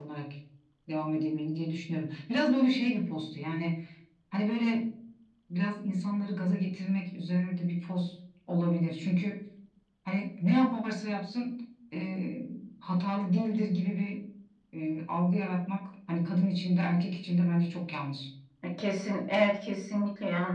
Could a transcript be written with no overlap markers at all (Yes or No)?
Yes